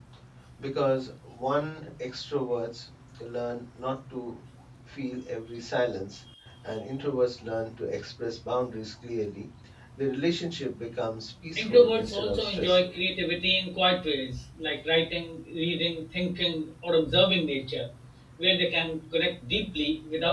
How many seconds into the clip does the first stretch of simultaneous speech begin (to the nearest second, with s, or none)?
12 s